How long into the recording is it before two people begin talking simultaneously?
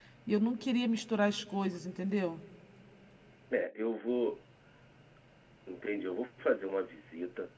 none

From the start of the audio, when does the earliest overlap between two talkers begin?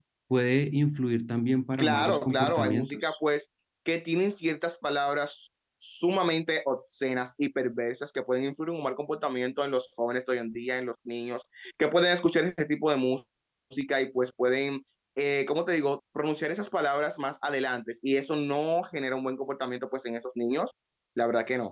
1.8 s

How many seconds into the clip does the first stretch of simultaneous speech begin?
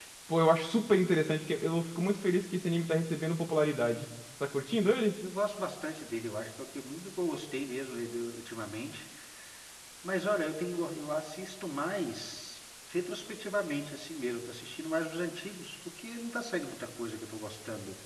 none

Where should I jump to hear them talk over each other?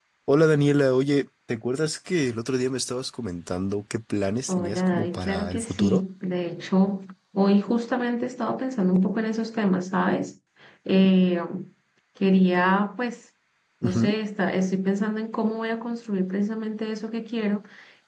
4.5 s

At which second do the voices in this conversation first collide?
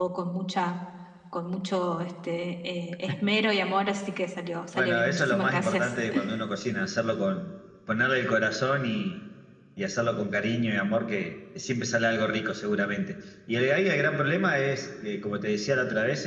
4.7 s

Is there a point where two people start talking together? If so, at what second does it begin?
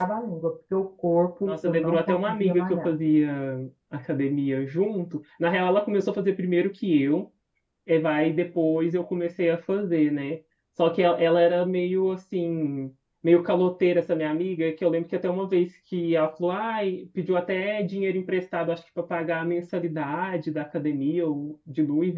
1.4 s

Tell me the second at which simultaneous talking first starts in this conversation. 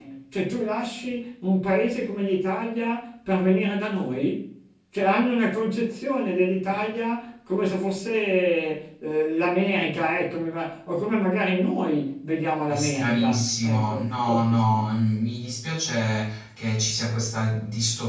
12.7 s

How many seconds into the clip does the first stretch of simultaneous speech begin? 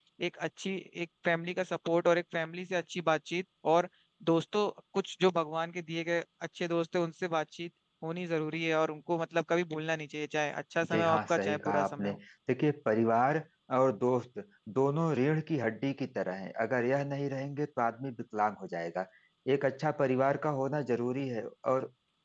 10.8 s

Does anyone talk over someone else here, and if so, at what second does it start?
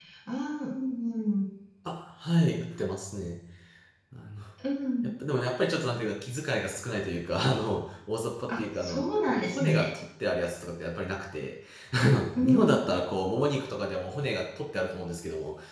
8.6 s

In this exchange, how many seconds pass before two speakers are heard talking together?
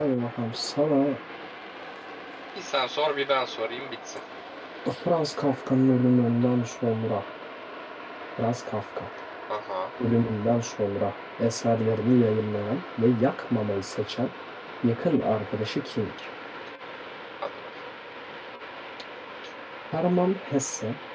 none

